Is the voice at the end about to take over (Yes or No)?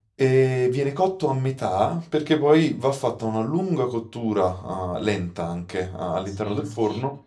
Yes